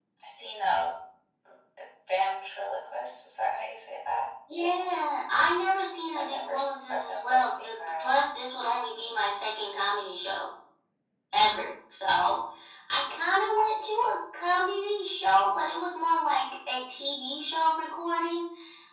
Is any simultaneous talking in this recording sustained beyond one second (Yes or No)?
Yes